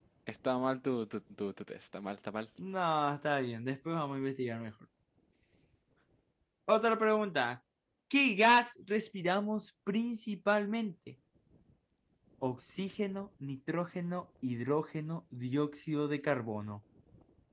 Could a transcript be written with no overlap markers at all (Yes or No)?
Yes